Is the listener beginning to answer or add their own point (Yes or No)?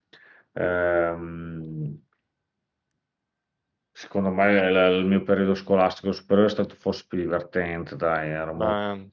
No